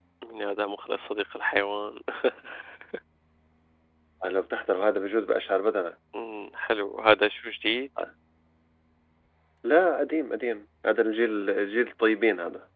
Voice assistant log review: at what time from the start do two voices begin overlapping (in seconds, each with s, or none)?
none